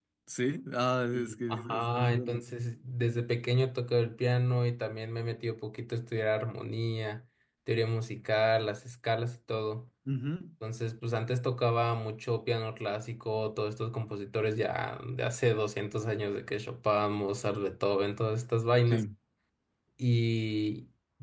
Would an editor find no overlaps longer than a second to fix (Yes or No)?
No